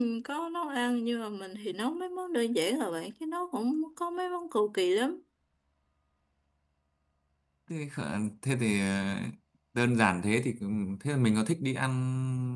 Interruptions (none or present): none